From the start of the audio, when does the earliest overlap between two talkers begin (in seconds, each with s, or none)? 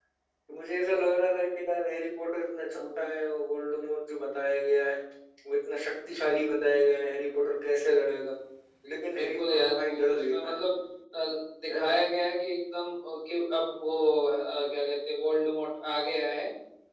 9.2 s